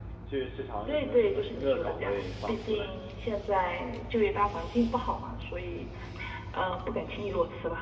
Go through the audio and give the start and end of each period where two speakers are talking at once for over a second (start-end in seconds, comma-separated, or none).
0.9-2.9